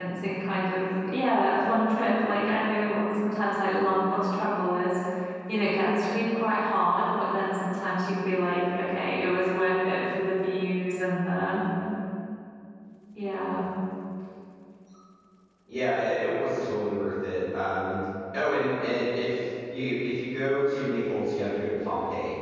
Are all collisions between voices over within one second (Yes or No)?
Yes